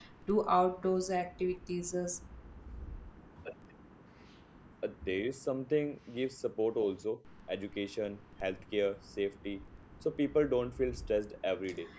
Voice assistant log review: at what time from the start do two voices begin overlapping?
none

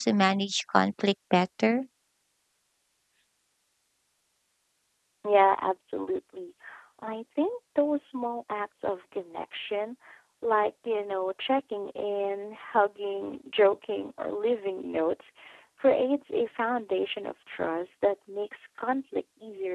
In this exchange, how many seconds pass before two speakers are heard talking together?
none

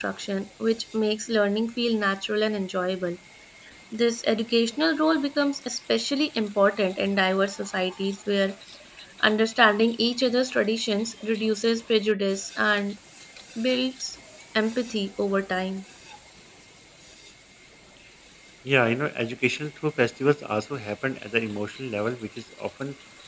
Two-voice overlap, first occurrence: none

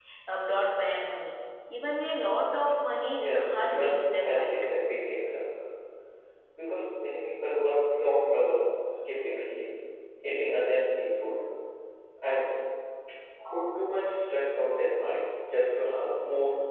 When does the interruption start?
3.2 s

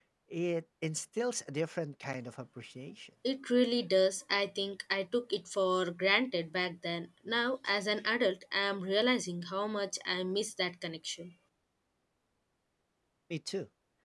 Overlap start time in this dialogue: none

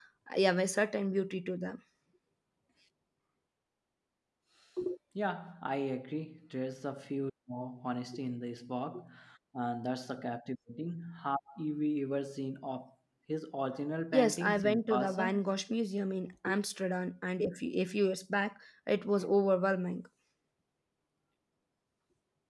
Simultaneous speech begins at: 14.1 s

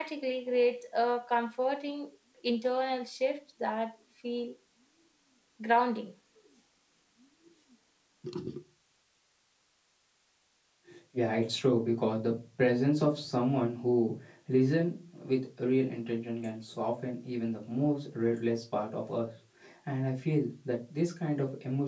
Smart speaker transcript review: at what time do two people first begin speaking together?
none

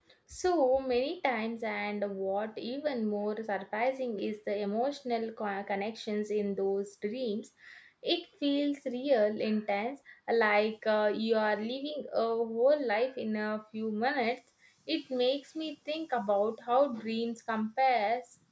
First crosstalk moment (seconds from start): none

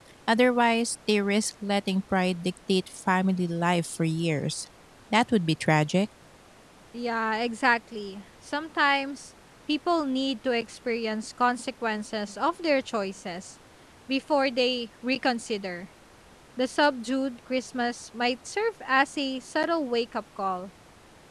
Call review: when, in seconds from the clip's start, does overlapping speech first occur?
none

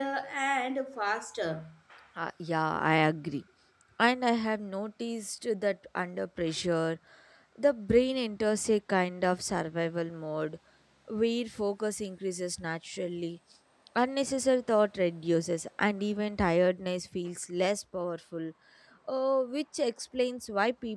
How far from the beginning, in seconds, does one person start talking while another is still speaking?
none

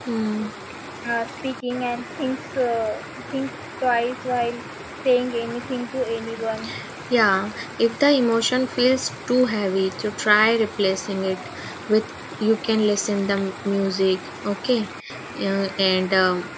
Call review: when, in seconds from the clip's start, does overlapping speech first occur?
none

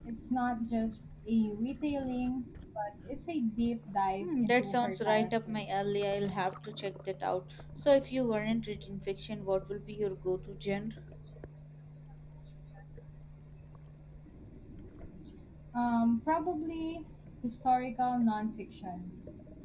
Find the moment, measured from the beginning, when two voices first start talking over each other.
4.2 s

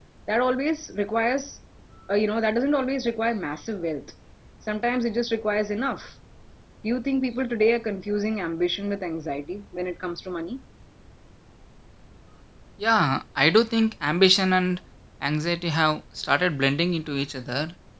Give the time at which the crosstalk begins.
none

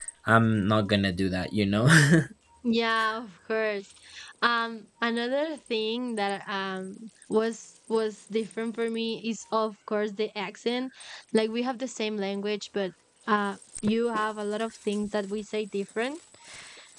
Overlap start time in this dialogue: none

